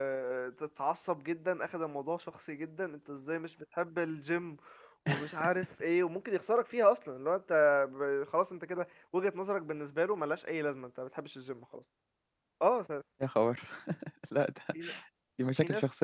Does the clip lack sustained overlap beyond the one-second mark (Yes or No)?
Yes